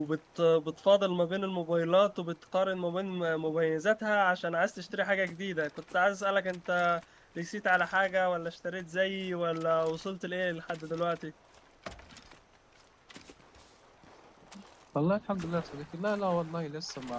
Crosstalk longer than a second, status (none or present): none